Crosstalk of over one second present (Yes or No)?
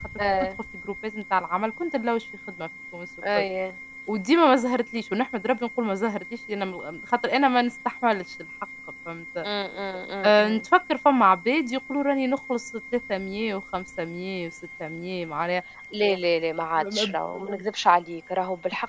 No